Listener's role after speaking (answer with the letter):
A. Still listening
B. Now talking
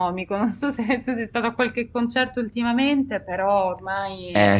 B